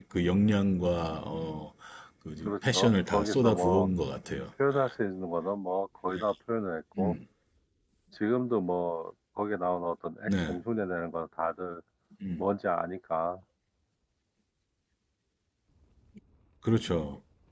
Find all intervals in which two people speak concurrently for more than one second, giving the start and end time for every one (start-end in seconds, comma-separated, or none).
2.5-3.9